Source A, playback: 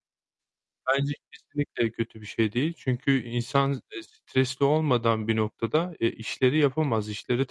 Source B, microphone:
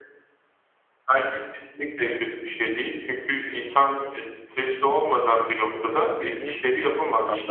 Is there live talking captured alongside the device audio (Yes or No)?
Yes